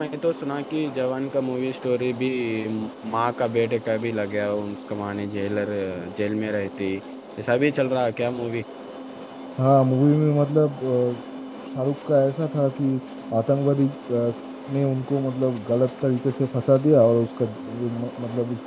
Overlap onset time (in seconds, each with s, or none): none